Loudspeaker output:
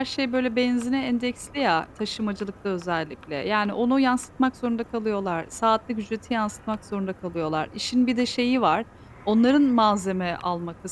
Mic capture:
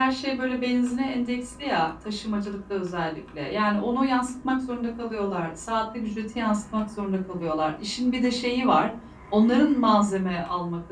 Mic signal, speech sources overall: echo only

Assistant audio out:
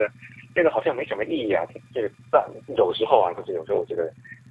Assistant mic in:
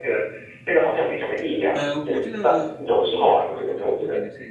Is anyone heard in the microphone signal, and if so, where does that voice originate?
both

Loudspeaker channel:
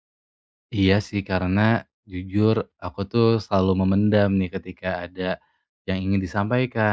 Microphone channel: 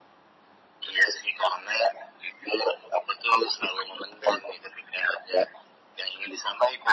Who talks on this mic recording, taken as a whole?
echo only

